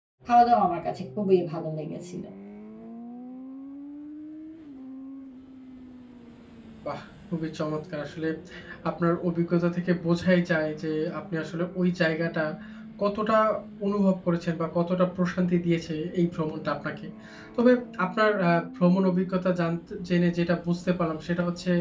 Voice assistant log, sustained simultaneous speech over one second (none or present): none